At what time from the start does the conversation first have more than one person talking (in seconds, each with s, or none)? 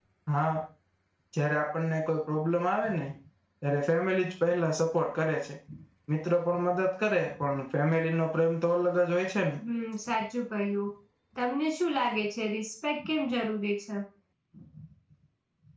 none